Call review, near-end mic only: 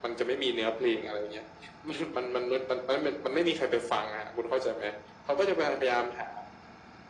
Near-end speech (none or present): none